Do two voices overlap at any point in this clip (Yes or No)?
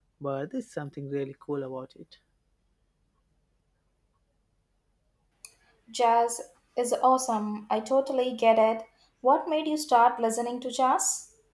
No